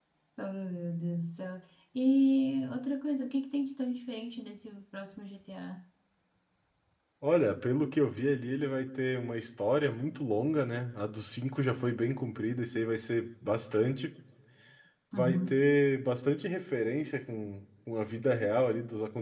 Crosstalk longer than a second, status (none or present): none